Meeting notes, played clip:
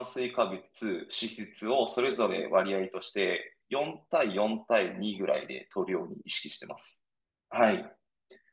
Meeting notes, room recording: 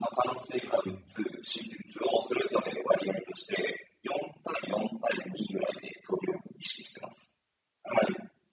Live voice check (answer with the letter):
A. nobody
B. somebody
B